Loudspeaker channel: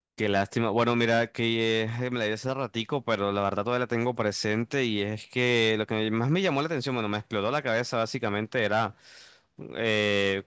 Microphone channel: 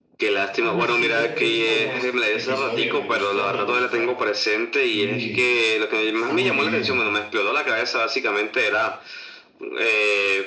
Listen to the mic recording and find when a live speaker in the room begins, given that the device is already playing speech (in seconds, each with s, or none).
0.6 s